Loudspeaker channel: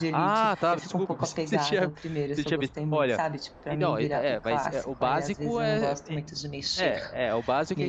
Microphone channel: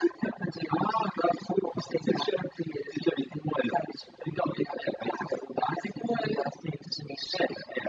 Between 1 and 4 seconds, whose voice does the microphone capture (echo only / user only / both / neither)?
echo only